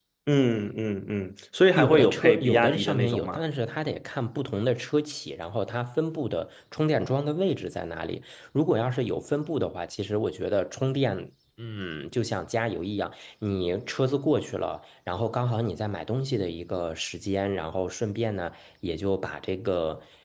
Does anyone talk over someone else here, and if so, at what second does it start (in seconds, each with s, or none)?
1.8 s